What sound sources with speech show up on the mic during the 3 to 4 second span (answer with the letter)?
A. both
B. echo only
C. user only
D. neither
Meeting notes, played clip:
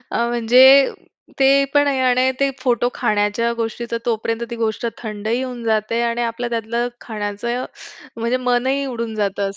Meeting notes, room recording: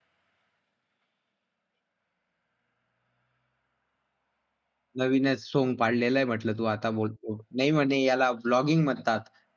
D